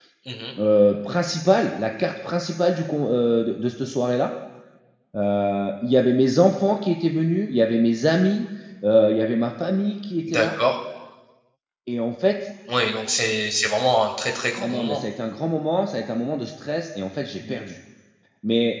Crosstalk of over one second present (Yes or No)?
No